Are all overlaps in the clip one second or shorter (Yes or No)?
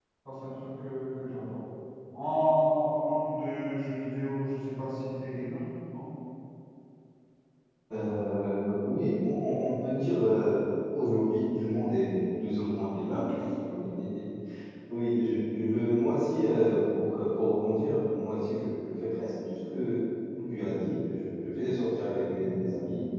Yes